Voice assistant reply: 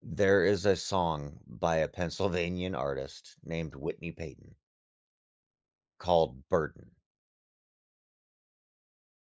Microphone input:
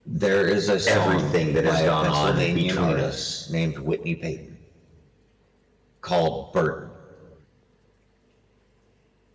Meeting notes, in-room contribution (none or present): present